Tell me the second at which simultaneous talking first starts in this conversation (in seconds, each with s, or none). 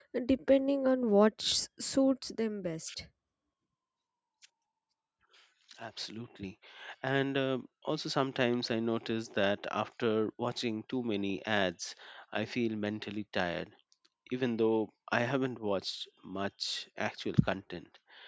none